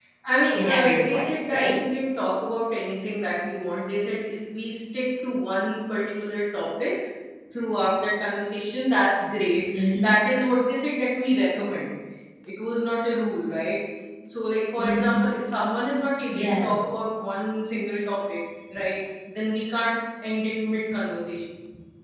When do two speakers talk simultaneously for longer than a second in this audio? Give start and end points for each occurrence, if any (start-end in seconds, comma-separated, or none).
0.5-1.8